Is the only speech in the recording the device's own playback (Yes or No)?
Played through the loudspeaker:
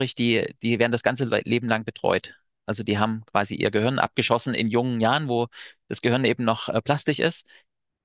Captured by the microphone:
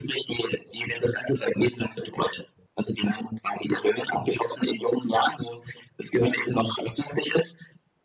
Yes